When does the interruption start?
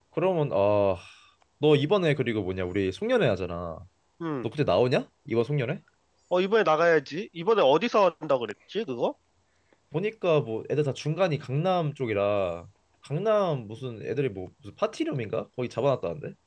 none

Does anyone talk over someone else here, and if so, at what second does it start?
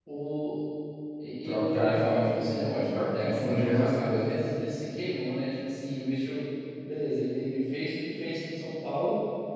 1.4 s

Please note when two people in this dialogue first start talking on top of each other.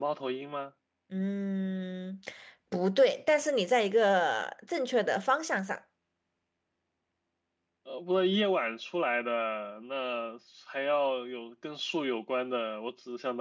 none

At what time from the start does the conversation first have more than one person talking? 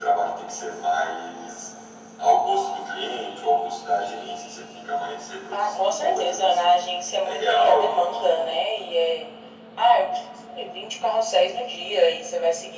5.5 s

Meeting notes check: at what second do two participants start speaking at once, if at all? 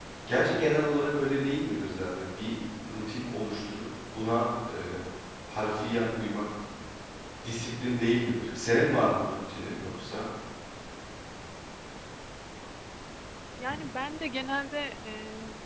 none

